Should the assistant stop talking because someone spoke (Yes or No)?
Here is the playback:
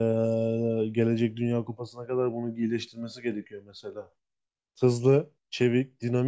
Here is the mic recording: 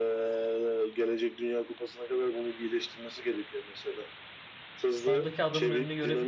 Yes